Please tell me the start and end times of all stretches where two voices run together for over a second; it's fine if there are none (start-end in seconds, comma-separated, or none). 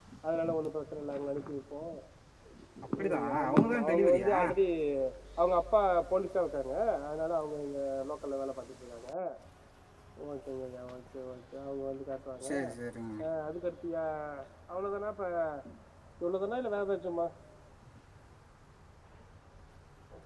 3.0-4.3